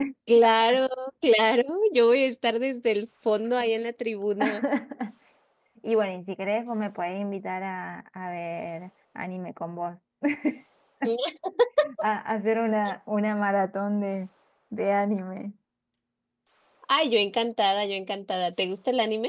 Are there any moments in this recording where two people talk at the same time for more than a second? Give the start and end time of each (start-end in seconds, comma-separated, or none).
none